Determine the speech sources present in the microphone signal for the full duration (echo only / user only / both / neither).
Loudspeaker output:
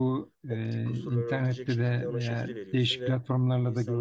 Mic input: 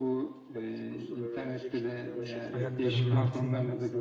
both